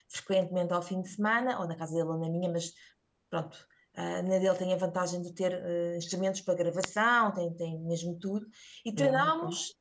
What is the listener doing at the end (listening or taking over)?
listening